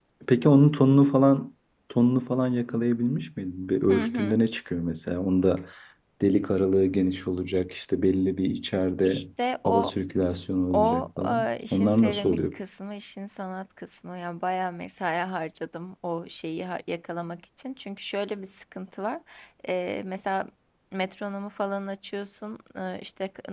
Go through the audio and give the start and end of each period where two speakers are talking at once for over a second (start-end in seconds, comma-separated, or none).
10.7-12.4